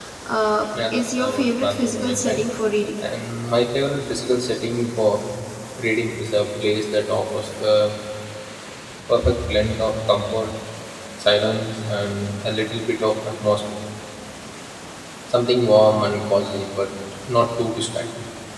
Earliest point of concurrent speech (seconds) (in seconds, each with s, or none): 0.9 s